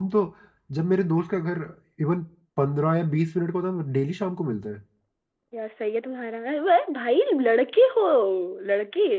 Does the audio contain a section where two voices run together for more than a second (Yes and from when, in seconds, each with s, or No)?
No